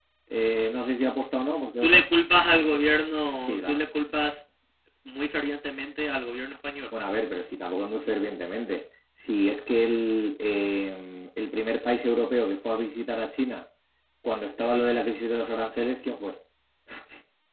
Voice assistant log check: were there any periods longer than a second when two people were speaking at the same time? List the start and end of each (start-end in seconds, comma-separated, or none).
none